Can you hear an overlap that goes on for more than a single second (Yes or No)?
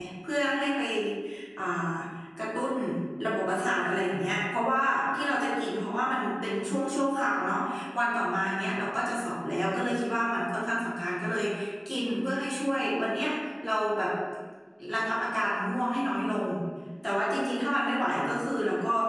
No